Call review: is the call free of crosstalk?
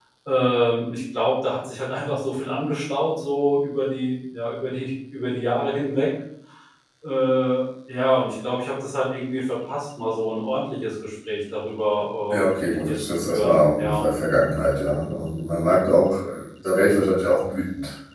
No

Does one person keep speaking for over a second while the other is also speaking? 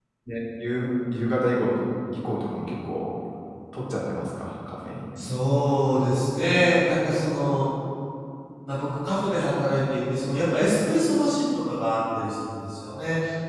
No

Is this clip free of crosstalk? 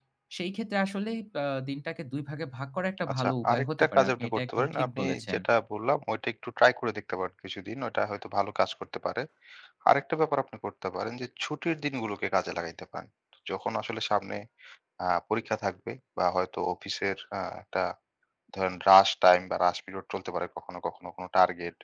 No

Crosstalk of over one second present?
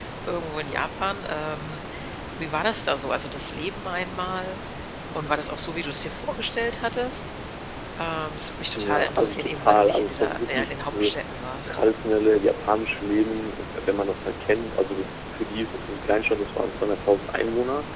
Yes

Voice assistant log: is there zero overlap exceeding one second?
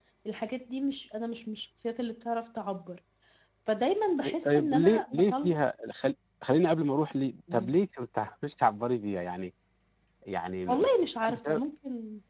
No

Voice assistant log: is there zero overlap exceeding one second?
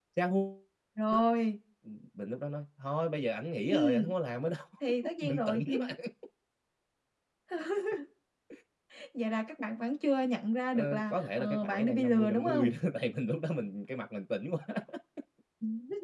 No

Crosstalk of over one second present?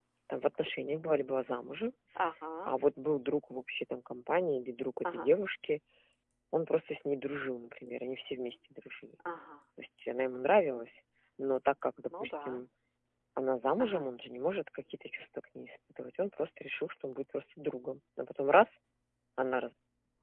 No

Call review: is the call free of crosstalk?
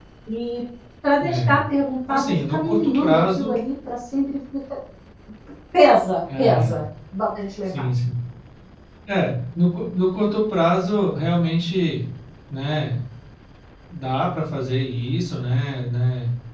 No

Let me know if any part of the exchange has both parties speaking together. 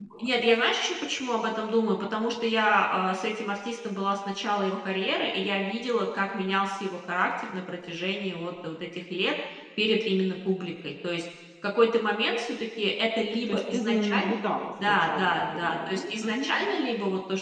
Yes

